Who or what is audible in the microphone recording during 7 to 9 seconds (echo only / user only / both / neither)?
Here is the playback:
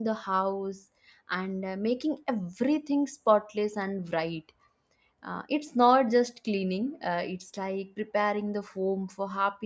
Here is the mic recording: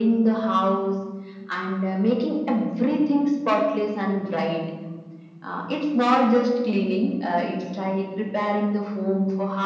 echo only